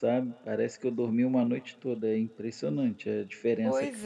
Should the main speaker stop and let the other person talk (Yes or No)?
Yes